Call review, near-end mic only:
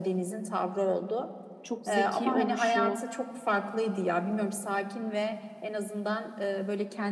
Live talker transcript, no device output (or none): çok zeki oluşu